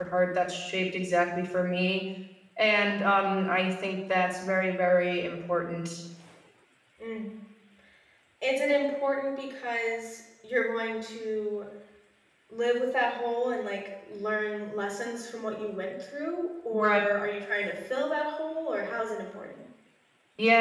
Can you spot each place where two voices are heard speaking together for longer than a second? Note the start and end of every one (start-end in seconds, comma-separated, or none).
none